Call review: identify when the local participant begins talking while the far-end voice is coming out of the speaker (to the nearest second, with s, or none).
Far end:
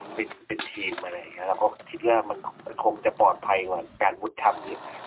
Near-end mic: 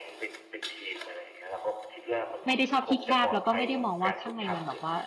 2 s